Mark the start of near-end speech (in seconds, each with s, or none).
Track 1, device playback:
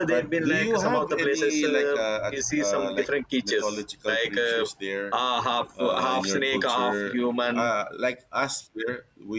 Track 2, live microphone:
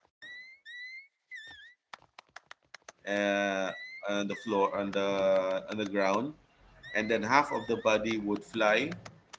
3.0 s